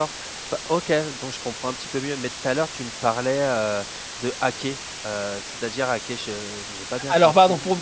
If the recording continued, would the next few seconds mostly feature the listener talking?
Yes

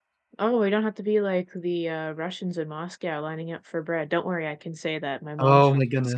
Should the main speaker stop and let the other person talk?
Yes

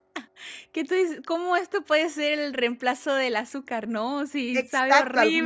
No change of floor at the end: No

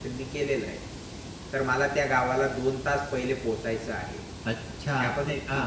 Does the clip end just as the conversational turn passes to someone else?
Yes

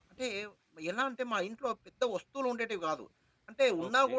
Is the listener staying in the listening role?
Yes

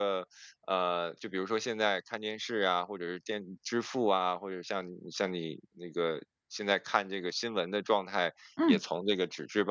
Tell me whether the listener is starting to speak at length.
No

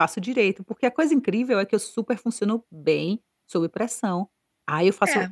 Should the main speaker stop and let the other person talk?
No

